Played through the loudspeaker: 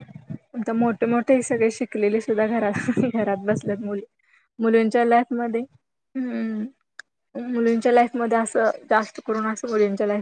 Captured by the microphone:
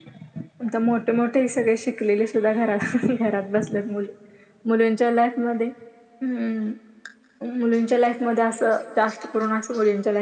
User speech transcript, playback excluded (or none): none